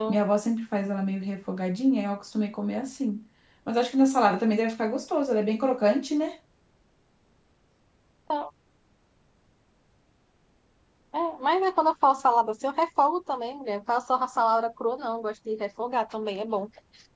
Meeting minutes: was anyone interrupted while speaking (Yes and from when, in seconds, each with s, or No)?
No